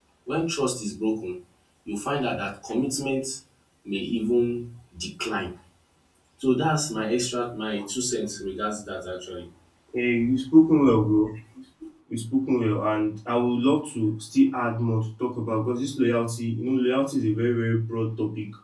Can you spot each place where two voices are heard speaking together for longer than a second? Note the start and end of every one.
none

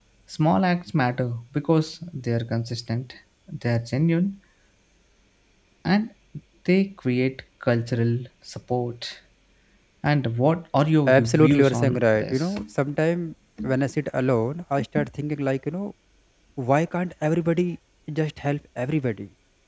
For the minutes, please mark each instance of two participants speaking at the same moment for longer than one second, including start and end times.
11.1-12.6

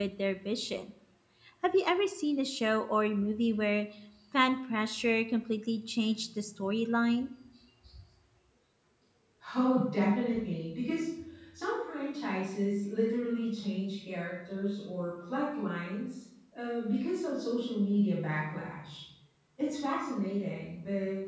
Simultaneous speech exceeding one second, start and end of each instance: none

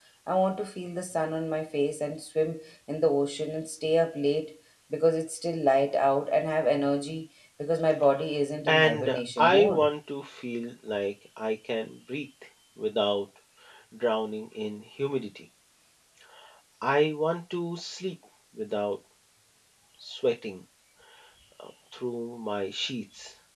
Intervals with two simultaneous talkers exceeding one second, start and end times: 8.7-9.9

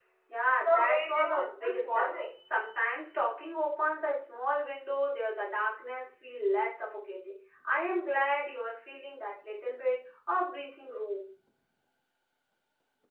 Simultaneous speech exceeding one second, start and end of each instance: 0.6-2.1

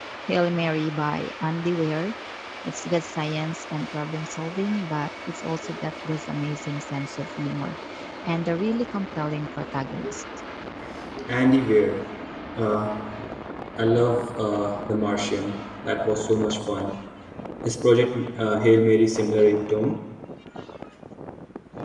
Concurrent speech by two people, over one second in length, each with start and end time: none

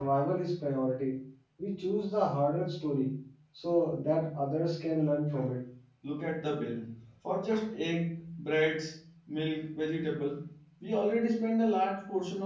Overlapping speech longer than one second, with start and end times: none

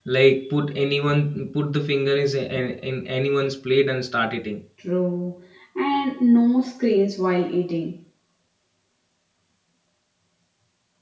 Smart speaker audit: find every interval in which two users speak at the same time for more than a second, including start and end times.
none

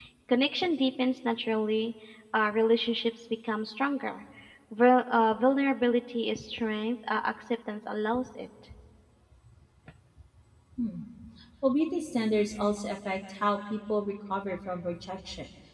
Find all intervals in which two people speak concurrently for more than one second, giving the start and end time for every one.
none

